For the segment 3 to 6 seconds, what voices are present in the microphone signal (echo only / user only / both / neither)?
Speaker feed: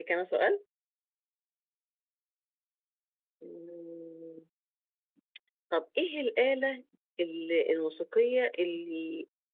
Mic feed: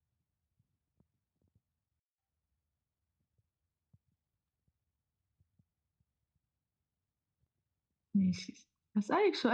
neither